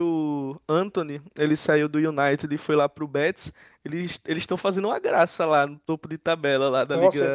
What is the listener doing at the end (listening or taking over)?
taking over